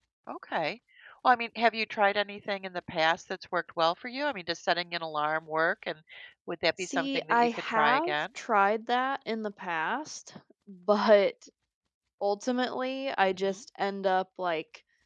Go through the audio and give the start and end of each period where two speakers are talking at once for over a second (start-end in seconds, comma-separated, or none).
6.8-8.1